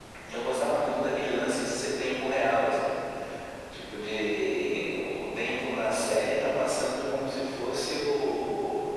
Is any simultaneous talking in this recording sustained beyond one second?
No

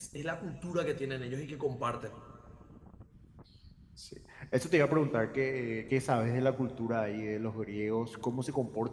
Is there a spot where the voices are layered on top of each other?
No

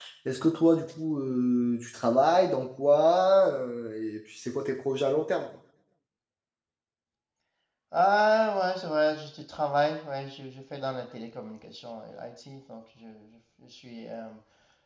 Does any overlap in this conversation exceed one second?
No

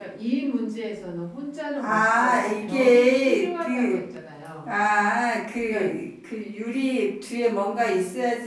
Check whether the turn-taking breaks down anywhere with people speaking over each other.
Yes, from 1.8 s

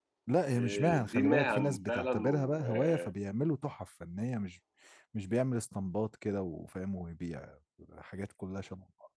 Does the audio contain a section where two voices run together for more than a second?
Yes, from 0.5 s

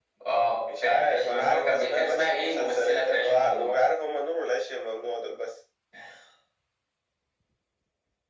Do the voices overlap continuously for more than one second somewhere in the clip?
Yes, from 0.8 s

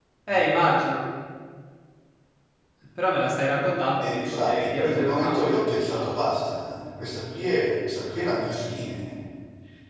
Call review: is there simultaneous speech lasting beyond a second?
Yes, from 4.0 s

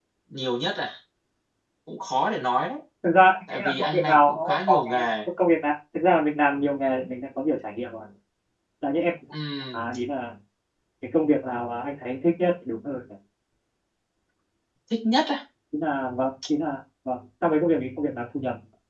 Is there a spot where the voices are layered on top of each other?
Yes, from 3.5 s

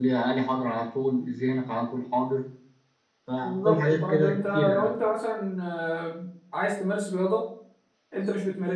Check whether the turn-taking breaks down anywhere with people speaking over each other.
Yes, from 3.4 s

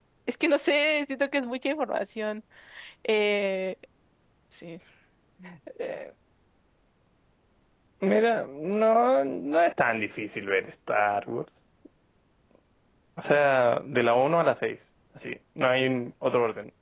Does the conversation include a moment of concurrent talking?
No

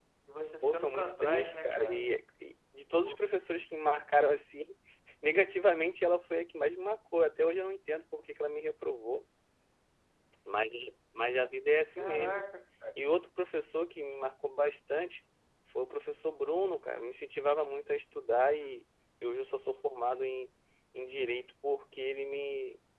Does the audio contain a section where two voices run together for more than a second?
Yes, from 0.6 s

